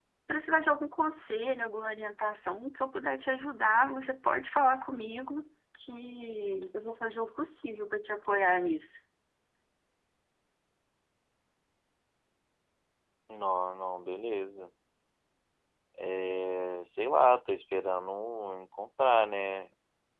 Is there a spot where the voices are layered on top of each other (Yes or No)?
No